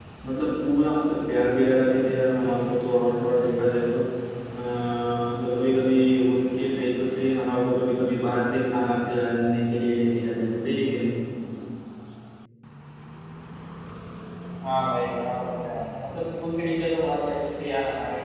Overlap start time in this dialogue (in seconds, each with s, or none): none